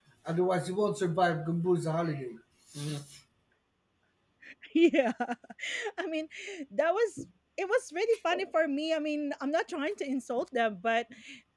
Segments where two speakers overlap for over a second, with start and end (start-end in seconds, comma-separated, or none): none